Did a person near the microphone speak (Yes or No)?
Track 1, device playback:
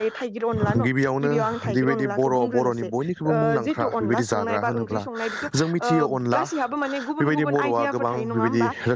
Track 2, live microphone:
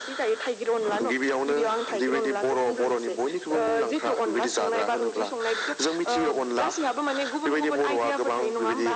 No